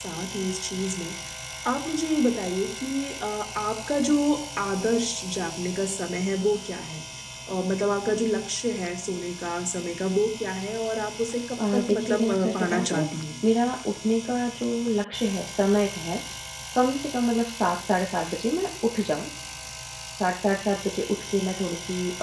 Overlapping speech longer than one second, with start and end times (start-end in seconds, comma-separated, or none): 11.7-13.1